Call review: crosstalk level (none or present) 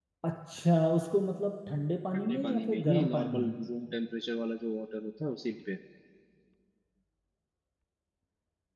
present